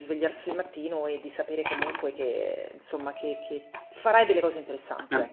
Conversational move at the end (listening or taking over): taking over